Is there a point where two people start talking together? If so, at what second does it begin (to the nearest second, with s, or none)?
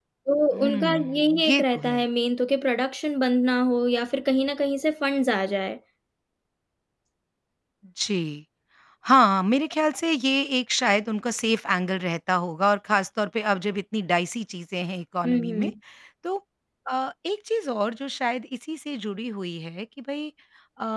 1 s